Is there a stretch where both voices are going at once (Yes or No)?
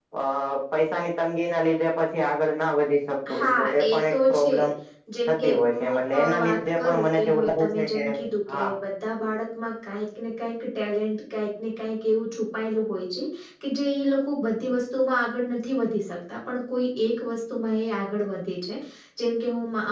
Yes